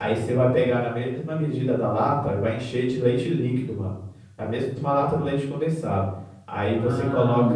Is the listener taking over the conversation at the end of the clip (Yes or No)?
No